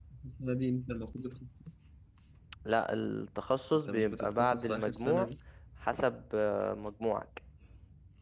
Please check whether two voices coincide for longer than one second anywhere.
Yes, from 3.9 s

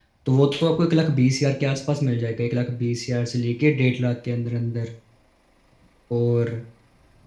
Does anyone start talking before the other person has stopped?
No

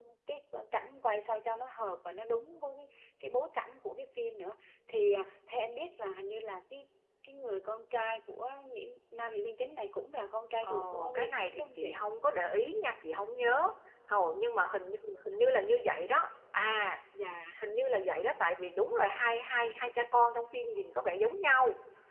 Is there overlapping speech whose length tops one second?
Yes, from 10.6 s

